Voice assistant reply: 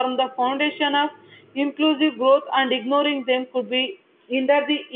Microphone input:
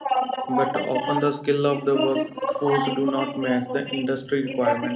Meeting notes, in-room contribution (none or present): present